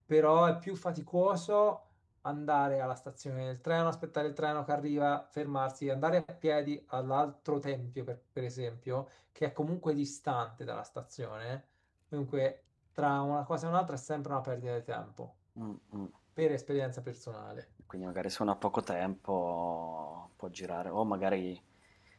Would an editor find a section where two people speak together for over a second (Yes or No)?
No